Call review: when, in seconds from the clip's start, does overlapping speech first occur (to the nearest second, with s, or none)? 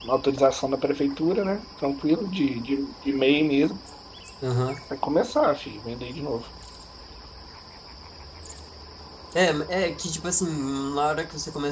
none